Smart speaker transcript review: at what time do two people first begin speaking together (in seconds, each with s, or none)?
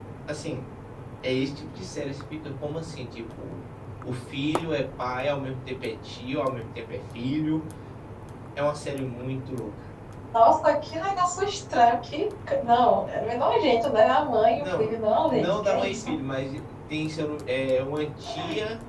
14.5 s